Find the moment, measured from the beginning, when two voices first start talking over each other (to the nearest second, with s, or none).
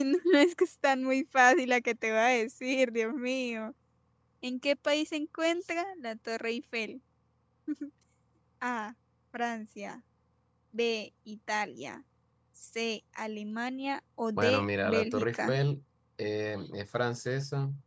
14 s